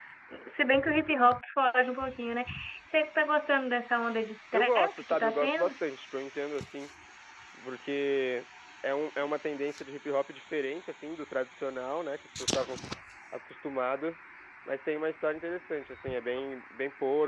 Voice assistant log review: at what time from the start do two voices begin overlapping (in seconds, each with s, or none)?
4.5 s